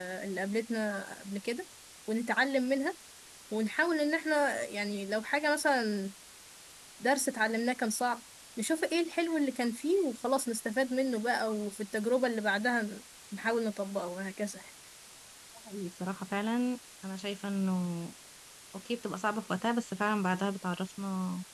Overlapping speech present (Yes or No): No